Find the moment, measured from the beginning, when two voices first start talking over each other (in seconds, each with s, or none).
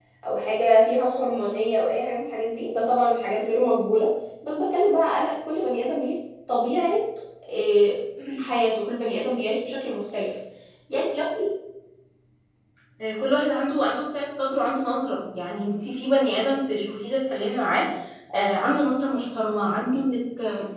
none